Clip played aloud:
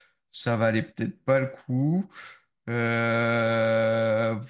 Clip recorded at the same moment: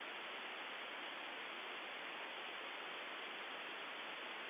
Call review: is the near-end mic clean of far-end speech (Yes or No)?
Yes